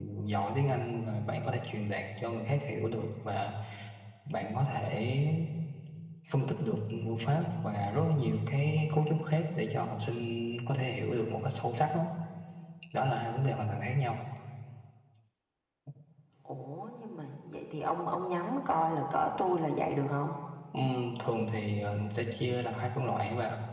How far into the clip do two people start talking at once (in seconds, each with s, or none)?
none